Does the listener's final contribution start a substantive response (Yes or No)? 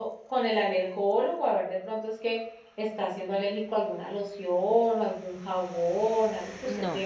Yes